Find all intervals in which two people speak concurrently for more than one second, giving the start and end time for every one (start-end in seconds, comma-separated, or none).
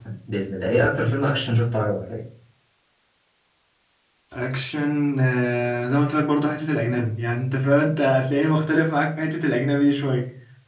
none